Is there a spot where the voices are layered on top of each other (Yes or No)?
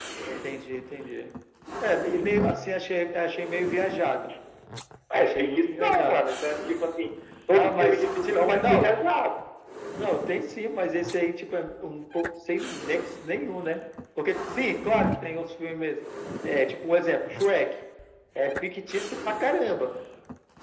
Yes